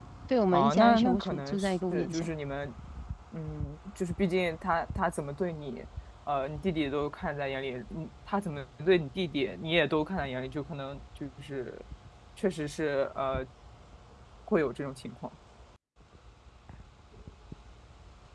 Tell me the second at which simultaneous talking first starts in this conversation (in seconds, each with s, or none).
0.5 s